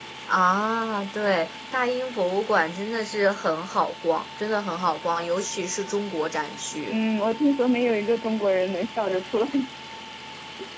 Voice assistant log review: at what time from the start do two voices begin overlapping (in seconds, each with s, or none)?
none